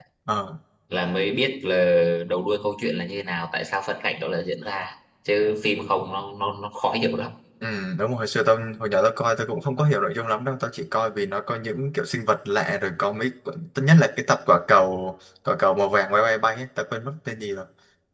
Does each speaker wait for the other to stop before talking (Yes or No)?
Yes